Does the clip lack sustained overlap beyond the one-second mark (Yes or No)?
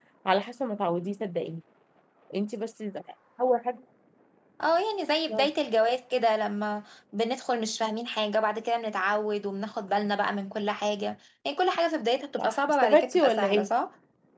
No